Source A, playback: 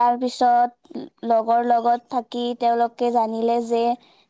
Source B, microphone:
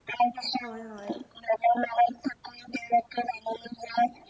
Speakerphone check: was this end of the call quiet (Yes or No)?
No